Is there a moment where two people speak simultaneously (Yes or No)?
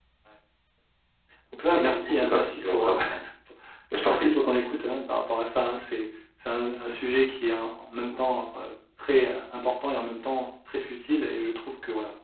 Yes